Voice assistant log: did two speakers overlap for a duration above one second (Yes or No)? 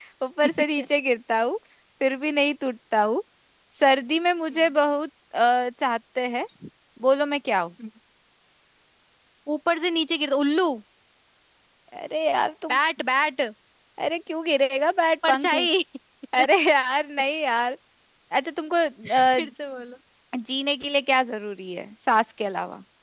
No